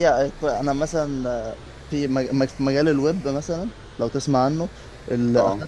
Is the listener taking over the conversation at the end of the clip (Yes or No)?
No